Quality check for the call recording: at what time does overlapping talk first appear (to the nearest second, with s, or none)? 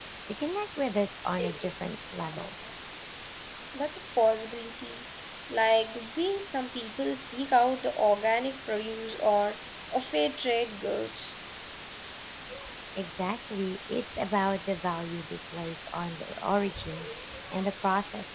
none